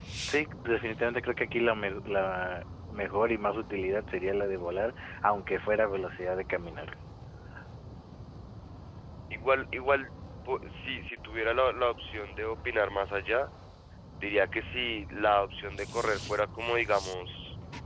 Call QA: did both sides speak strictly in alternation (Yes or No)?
Yes